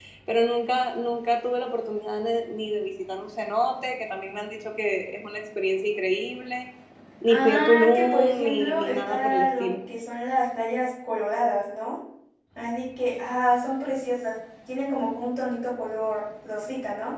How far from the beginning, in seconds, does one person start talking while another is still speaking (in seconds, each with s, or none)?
7.3 s